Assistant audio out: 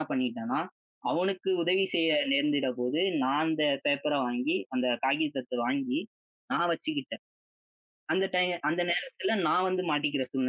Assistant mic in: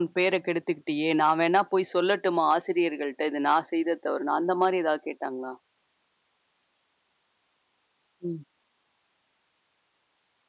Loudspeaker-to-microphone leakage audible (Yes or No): No